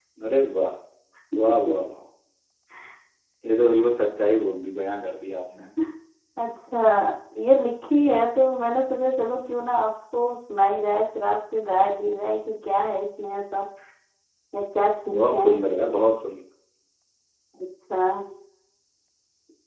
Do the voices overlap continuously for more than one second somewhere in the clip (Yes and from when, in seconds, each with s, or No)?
No